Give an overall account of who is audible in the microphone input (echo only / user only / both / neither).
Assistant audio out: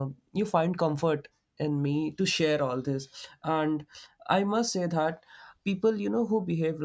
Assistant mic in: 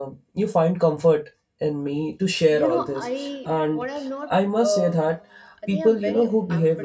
both